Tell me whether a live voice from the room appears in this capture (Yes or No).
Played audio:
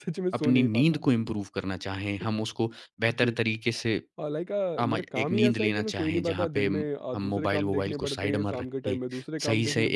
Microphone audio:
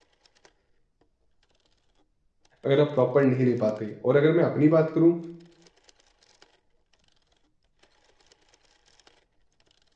Yes